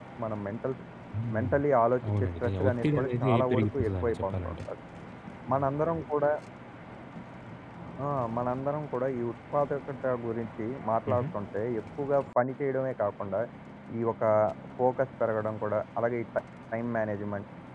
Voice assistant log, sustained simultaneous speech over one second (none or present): present